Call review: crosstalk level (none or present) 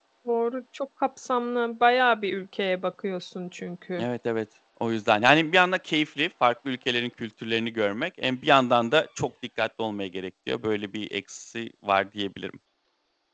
none